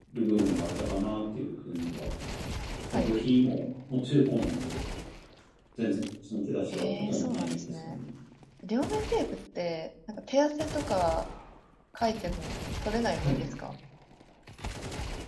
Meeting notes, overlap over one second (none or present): present